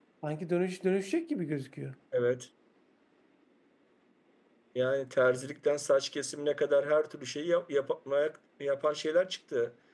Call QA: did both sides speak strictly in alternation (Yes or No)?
Yes